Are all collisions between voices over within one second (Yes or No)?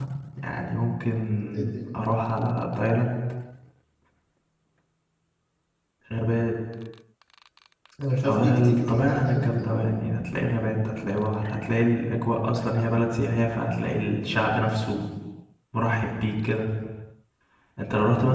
No